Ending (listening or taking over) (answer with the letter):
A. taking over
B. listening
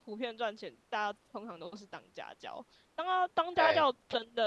B